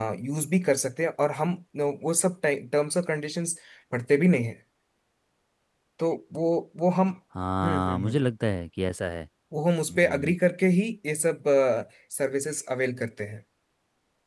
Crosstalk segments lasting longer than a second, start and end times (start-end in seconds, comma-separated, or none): none